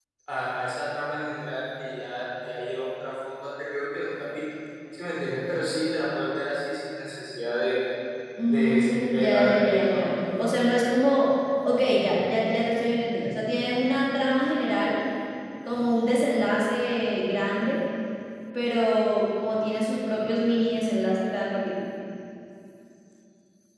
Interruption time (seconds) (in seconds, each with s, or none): 8.5 s